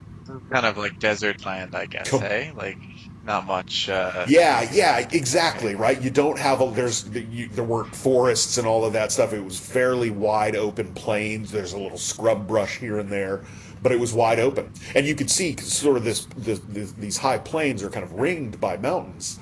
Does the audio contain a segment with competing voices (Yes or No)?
Yes